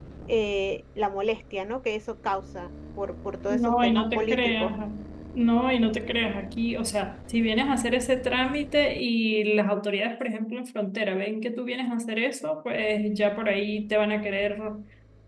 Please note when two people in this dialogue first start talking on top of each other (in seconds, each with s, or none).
3.5 s